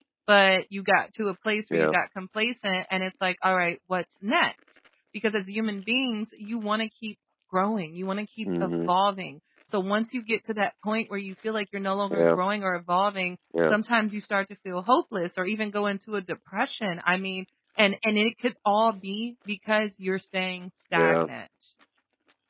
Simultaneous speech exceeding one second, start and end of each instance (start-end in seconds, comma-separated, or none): none